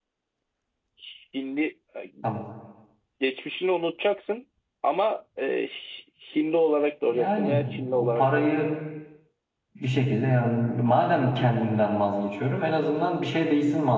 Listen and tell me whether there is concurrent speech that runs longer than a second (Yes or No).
Yes